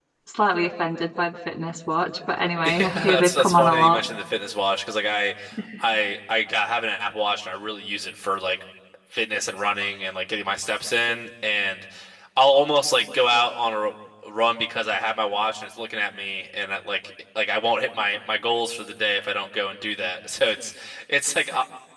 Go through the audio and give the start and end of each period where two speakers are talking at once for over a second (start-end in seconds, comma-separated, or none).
2.6-4.0